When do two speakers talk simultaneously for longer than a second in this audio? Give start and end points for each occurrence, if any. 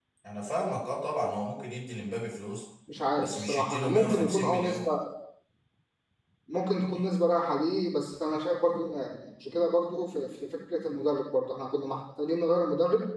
3.2-4.9

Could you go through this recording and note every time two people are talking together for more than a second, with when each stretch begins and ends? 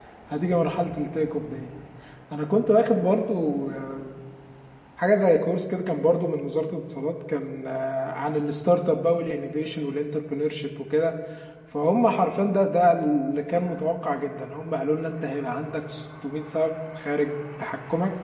none

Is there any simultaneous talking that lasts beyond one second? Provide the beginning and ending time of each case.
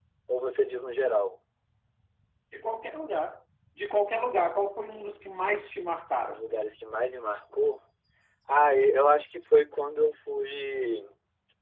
none

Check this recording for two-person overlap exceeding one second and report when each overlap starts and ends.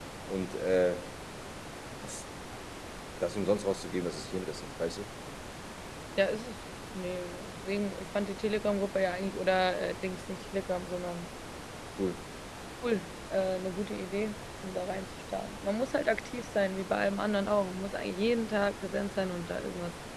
none

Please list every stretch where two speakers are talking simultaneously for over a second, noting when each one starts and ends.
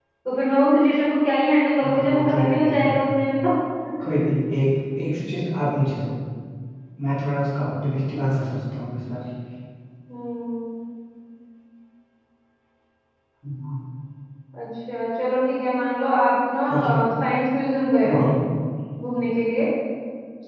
1.8-3.0

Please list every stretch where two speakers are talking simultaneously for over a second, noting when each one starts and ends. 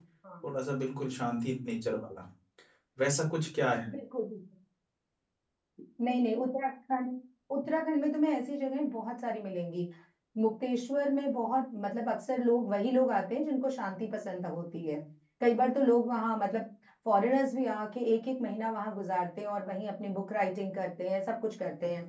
none

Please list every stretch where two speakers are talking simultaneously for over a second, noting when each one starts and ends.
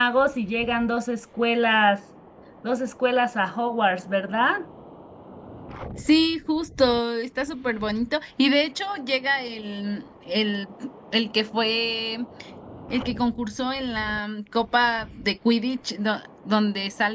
none

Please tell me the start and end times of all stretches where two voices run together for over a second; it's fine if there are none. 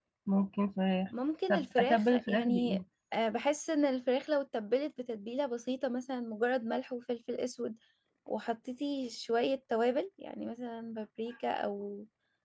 1.5-2.8

